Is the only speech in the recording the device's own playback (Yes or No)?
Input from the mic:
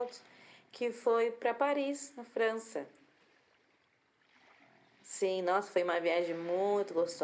Yes